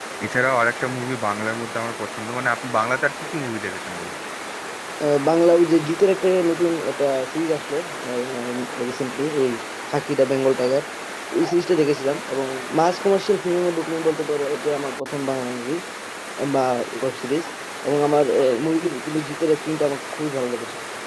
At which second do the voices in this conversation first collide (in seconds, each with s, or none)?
none